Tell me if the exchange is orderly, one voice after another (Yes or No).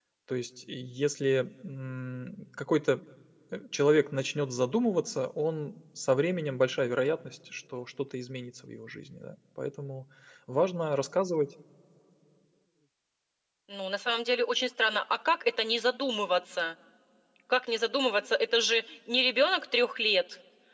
Yes